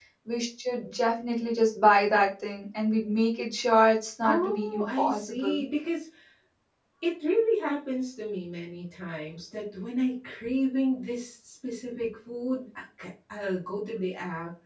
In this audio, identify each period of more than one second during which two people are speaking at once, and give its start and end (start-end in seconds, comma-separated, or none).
4.2-5.6